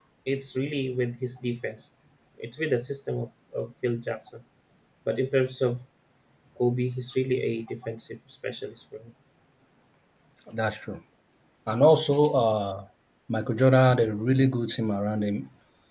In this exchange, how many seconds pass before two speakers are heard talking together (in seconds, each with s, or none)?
none